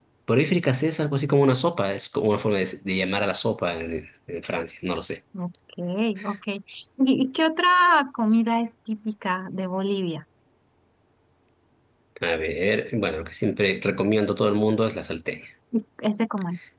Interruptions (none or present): none